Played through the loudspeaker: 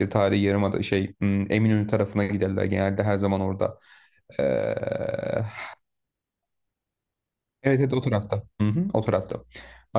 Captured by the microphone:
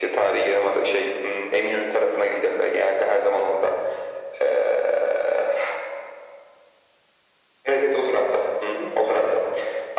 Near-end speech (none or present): none